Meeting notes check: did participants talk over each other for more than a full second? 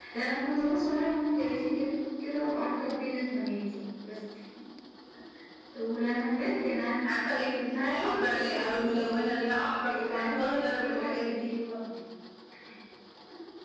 Yes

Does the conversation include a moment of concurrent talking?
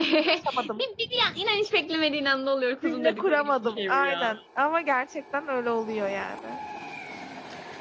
Yes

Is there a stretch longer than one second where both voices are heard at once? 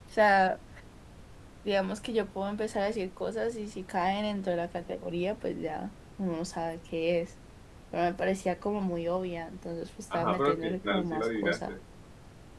Yes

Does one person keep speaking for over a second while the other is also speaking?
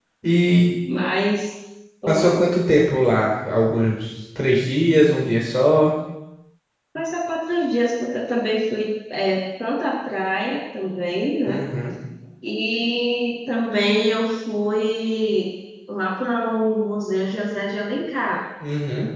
No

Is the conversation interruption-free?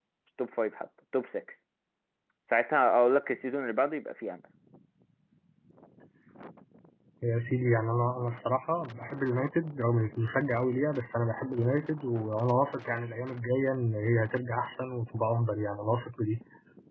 Yes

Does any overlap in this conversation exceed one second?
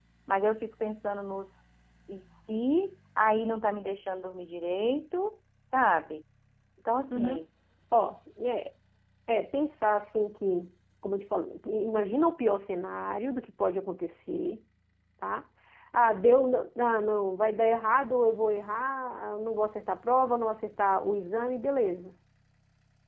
No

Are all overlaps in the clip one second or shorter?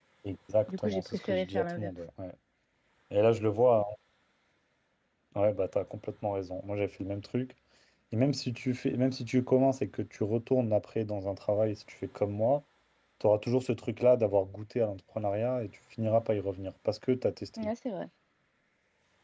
No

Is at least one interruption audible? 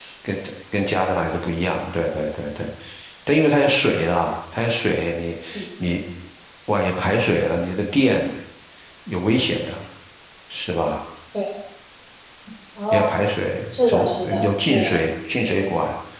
Yes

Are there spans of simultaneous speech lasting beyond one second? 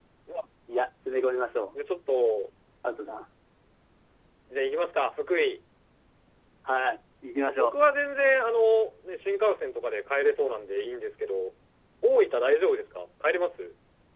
No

